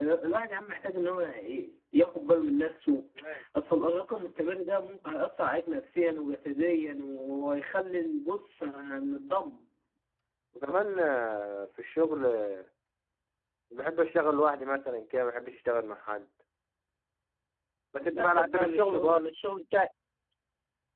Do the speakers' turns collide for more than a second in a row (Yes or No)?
Yes